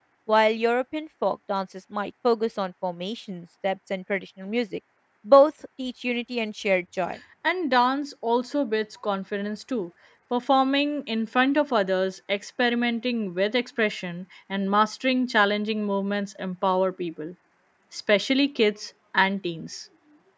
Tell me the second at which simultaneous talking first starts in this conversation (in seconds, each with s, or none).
none